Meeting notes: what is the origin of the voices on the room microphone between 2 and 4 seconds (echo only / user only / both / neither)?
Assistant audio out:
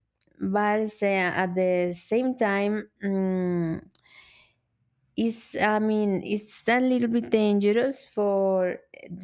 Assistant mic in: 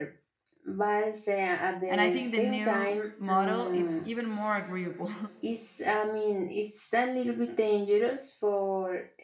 both